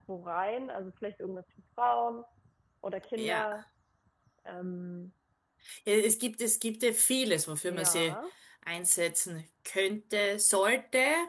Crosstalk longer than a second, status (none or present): none